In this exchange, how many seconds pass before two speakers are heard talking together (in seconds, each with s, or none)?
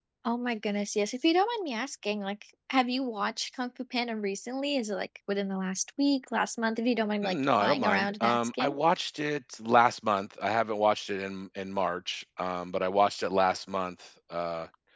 7.2 s